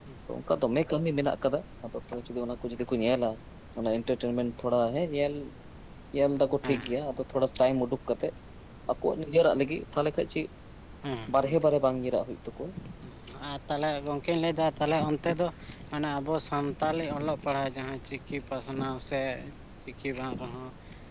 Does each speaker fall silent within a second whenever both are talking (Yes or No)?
Yes